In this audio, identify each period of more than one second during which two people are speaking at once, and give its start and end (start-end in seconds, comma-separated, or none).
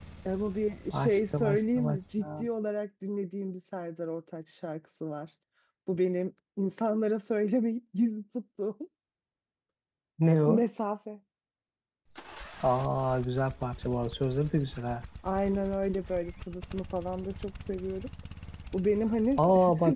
0.9-2.5